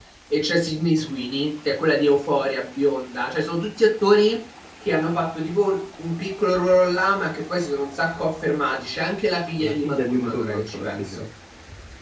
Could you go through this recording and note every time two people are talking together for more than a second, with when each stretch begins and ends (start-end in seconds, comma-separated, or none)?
9.6-11.2